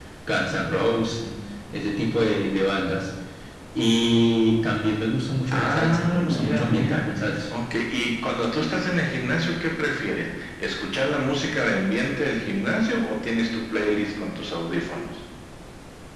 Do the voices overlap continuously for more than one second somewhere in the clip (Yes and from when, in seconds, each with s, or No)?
Yes, from 5.5 s